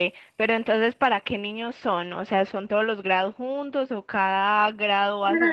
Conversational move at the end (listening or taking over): taking over